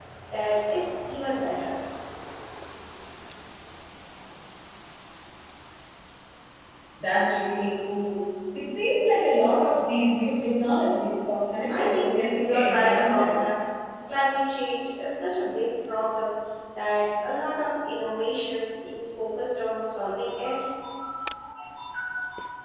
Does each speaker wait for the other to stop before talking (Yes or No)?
No